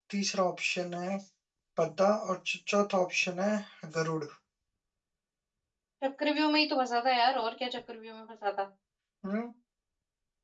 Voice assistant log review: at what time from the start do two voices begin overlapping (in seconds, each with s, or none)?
none